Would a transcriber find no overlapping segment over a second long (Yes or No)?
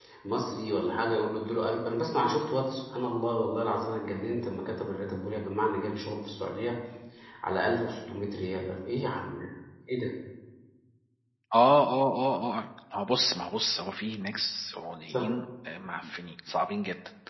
Yes